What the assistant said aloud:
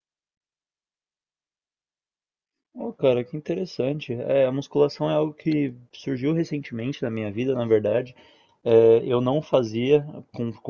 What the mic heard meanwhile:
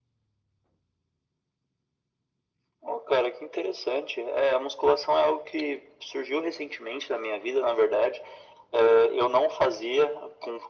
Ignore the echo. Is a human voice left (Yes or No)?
No